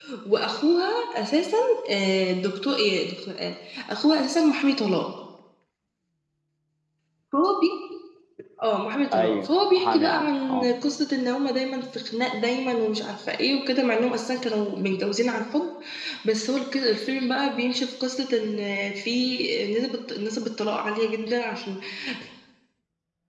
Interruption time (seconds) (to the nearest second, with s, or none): 9 s